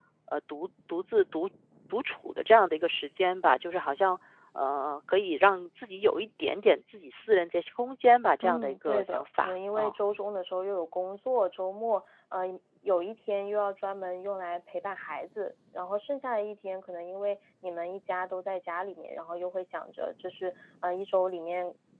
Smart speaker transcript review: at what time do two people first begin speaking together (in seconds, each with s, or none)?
8.4 s